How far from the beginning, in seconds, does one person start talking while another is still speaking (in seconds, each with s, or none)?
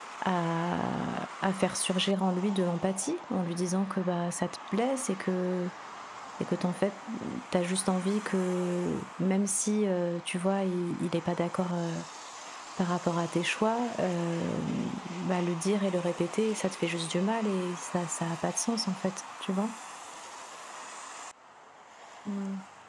none